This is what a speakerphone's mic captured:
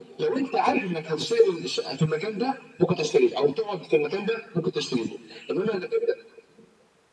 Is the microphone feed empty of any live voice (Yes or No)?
Yes